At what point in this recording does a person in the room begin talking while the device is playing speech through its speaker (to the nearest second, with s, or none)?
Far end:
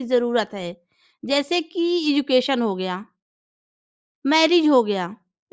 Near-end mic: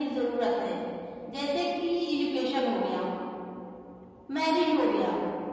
none